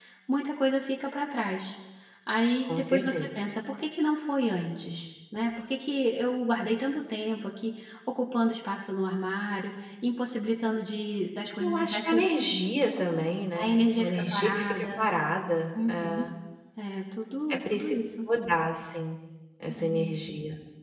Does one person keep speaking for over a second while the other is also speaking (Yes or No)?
Yes